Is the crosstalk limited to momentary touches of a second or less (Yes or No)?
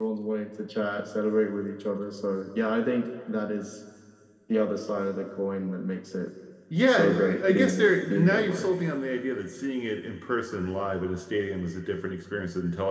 No